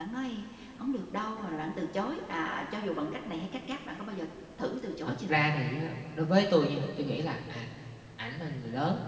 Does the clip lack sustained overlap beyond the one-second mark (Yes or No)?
Yes